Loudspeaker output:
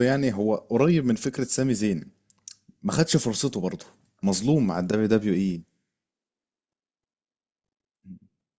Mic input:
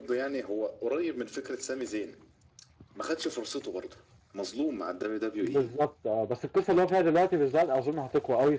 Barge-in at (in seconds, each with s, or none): 5.4 s